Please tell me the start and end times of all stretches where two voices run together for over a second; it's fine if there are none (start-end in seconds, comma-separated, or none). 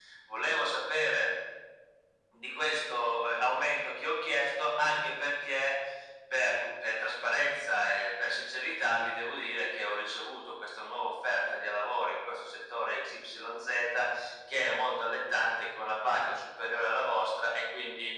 none